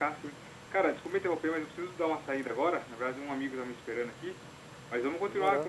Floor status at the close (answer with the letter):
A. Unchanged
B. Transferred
A